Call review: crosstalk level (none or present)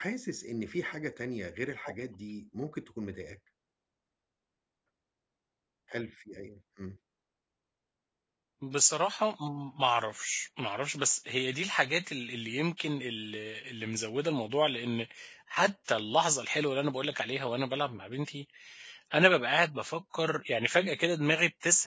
none